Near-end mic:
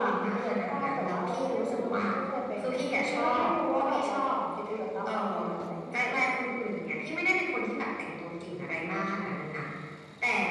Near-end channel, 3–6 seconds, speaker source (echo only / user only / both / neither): echo only